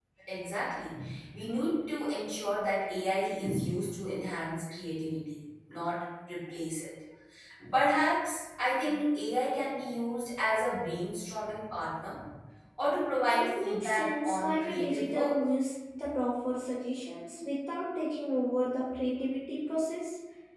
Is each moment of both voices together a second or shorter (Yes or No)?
No